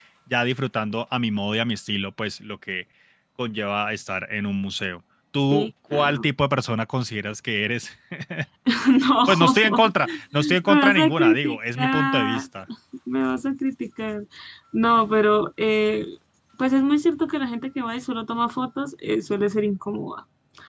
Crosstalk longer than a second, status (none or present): present